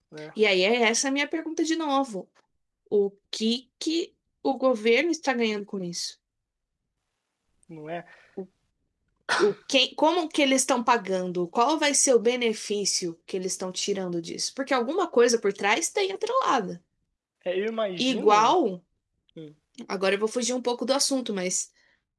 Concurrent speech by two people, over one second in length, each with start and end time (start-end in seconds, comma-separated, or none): none